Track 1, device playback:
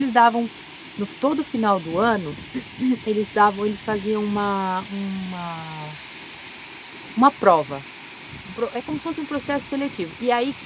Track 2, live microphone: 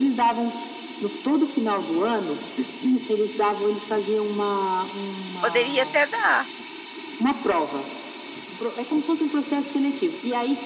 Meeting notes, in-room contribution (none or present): present